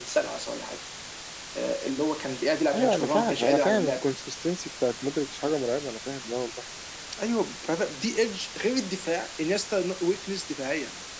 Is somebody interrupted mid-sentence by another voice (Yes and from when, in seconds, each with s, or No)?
Yes, from 2.7 s